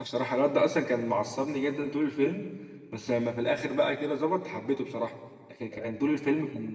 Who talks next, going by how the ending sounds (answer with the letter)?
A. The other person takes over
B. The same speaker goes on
B